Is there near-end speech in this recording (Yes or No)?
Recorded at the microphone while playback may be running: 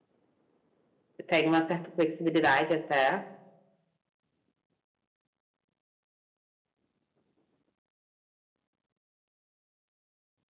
Yes